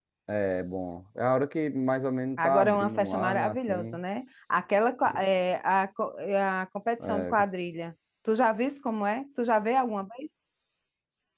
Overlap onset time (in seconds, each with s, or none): 2.4 s